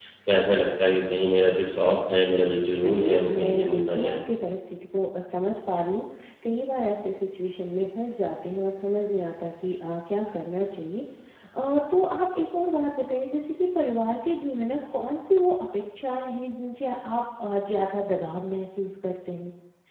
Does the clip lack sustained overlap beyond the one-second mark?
No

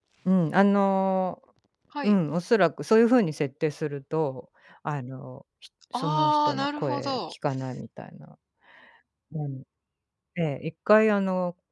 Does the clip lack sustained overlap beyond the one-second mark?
No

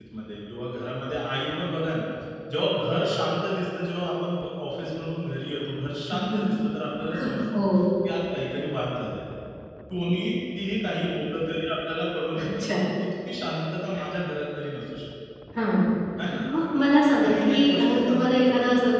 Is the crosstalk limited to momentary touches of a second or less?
No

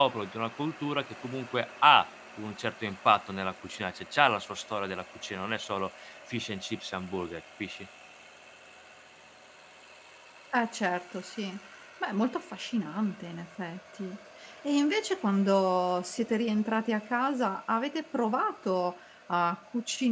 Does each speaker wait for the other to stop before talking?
Yes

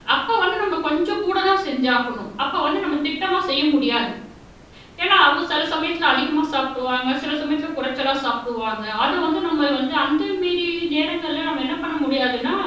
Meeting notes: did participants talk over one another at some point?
No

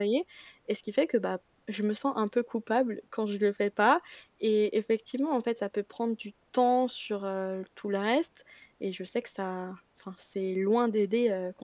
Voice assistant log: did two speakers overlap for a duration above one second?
No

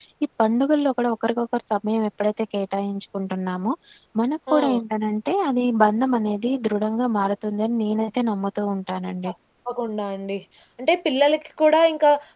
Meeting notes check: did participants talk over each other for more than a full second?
No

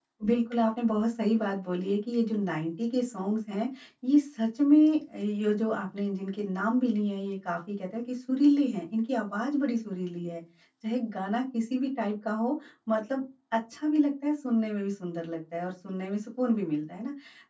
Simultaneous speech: No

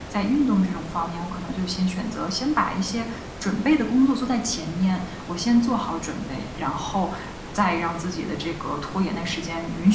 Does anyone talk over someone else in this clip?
No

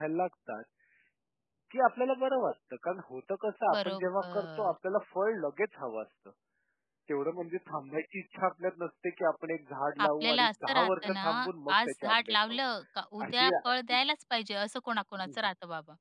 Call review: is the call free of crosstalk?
No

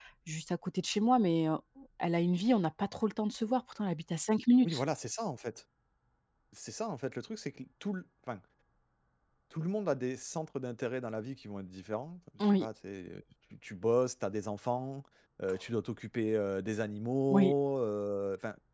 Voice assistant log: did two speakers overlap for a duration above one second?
No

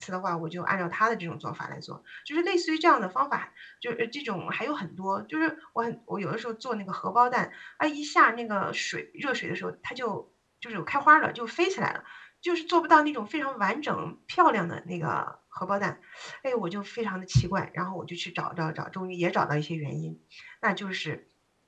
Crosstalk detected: No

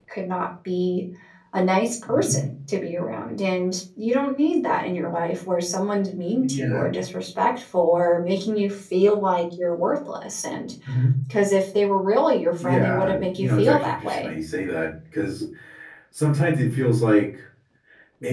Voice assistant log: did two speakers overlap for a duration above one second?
Yes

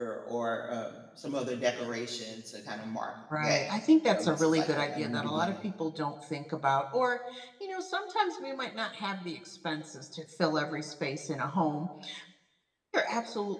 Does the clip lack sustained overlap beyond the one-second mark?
No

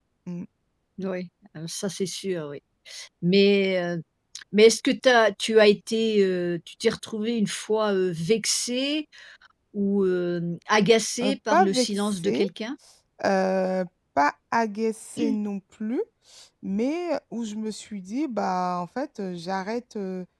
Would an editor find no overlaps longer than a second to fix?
No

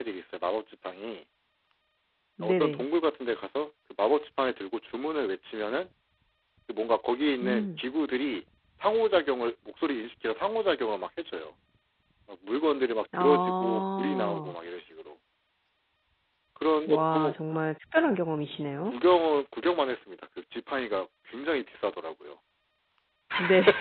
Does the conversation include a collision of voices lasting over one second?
Yes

